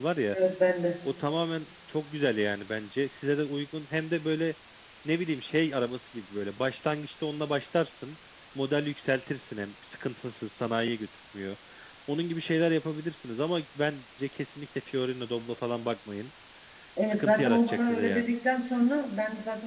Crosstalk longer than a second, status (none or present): present